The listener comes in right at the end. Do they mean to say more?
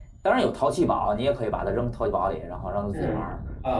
Yes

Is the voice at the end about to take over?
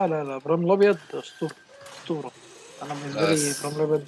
No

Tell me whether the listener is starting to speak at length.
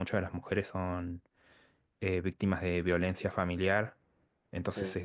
No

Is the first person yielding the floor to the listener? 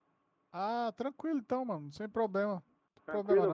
Yes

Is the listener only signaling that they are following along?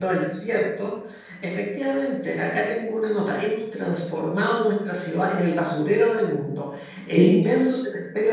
Yes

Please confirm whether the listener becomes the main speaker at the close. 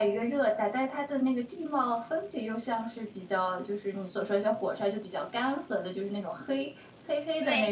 Yes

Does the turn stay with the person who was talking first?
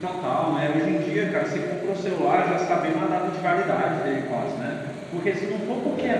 Yes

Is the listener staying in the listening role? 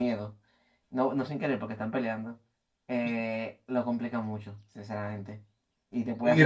No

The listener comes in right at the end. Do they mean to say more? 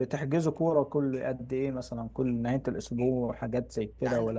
Yes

